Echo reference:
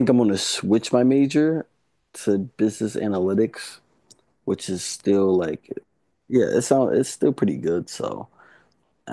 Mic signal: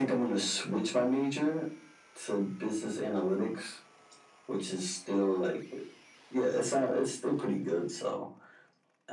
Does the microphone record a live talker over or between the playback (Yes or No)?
No